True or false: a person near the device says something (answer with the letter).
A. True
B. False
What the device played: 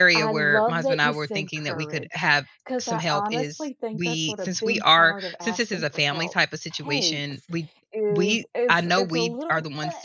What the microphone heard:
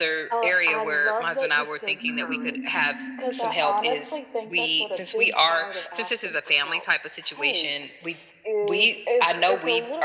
A